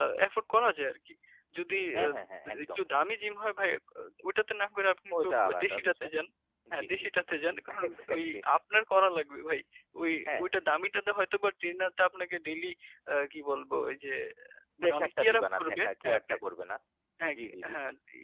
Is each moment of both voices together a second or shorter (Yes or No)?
No